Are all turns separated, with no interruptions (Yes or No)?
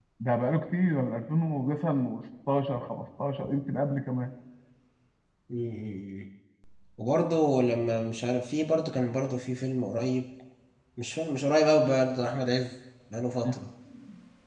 Yes